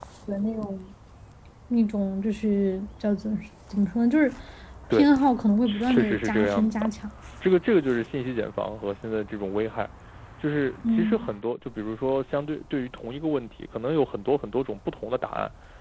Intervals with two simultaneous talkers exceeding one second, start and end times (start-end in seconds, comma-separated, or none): 5.6-6.9